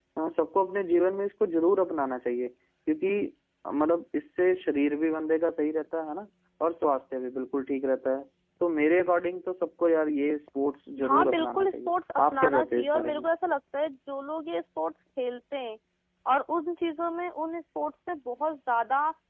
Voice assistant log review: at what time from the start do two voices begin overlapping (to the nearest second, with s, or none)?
11 s